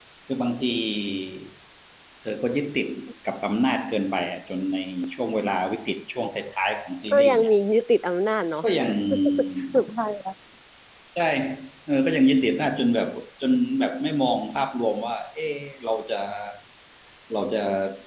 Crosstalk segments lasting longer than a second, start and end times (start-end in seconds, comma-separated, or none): none